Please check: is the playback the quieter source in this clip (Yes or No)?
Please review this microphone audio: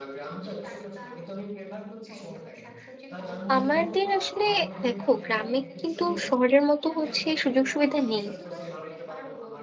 Yes